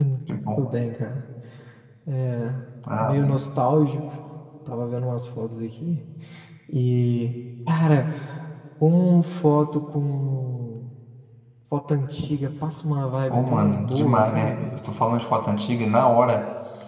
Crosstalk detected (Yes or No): Yes